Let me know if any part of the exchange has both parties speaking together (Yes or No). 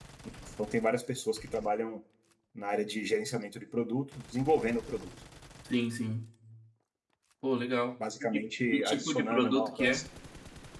Yes